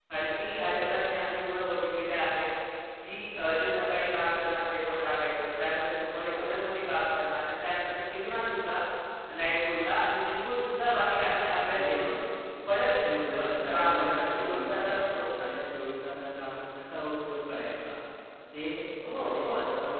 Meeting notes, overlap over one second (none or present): present